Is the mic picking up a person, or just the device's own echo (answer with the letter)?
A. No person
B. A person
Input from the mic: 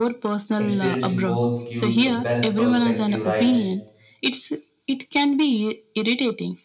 B